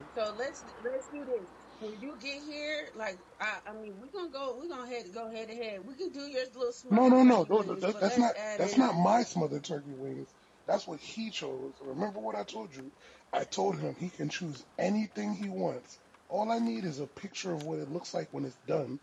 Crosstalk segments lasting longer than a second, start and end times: 6.9-9.3

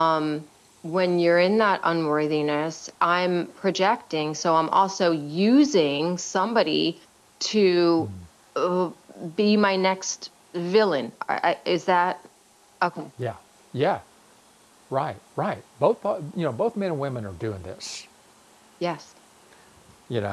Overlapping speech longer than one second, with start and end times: none

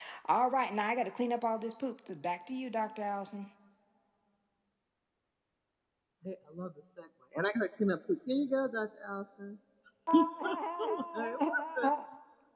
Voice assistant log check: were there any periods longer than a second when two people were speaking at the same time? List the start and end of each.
10.1-11.9

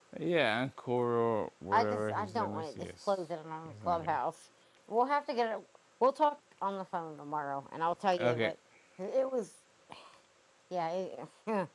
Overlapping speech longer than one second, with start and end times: 1.7-3.1

